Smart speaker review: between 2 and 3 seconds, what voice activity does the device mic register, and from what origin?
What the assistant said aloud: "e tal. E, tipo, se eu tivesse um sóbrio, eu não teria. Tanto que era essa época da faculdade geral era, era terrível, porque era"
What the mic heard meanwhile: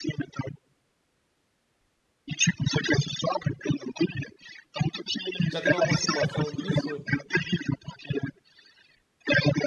echo only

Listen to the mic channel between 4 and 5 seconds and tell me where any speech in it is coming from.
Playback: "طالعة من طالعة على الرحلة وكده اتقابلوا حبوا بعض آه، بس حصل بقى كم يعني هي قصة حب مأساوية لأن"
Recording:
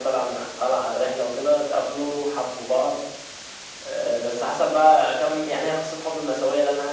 echo only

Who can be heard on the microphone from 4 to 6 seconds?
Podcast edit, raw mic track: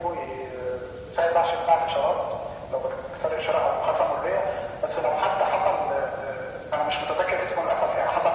echo only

